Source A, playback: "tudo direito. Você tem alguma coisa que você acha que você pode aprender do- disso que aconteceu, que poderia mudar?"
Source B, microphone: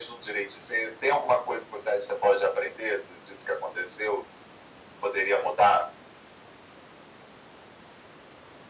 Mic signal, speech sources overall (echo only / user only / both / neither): echo only